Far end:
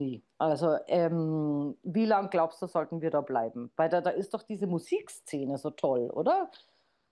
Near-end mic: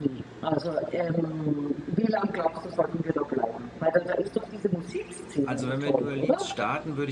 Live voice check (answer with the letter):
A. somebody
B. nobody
A